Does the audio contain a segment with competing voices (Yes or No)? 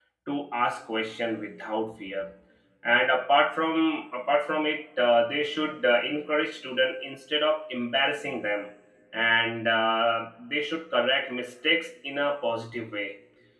No